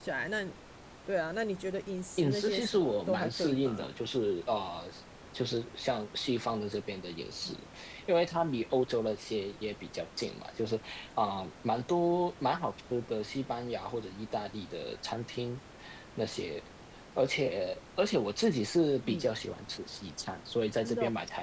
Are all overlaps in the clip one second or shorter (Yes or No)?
No